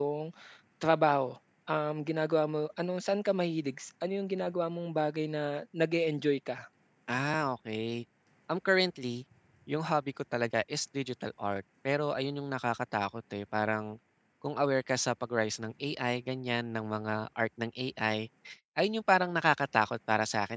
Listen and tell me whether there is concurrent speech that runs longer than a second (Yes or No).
No